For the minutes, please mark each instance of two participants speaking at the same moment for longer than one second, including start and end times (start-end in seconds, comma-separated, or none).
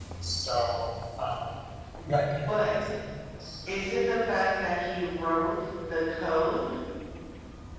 none